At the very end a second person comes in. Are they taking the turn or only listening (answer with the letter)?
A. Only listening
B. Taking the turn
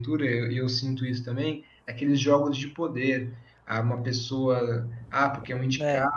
A